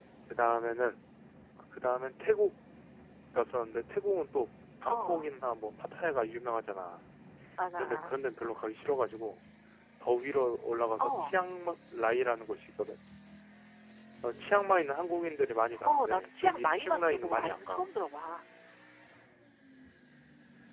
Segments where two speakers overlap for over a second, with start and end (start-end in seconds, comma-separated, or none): 15.9-17.9